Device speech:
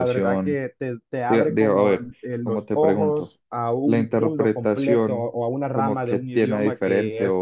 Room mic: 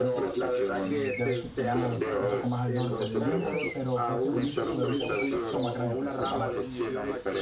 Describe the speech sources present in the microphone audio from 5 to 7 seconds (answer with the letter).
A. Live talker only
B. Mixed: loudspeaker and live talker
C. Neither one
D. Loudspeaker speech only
B